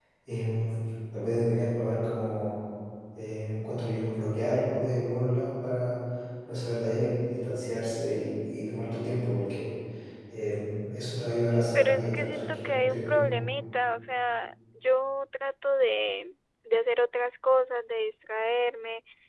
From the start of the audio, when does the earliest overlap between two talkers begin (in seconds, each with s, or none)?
11.7 s